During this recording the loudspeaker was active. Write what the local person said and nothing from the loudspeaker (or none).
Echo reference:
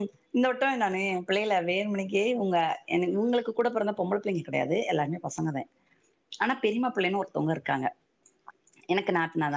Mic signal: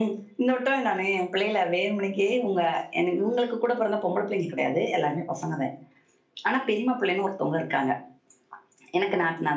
none